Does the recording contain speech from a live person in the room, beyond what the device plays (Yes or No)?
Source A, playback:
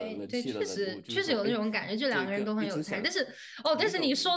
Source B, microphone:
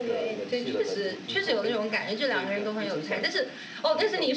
No